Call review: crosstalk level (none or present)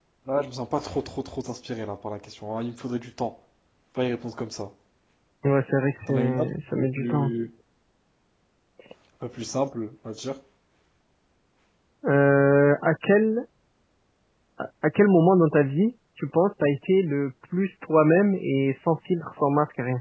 present